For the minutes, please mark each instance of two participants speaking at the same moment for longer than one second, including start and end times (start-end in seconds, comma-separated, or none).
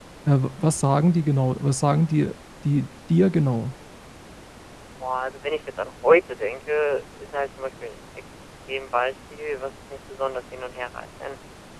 none